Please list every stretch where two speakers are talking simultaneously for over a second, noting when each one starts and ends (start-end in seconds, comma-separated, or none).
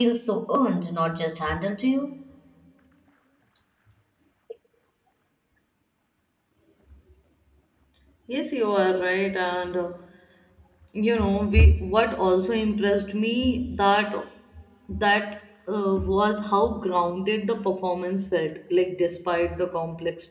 none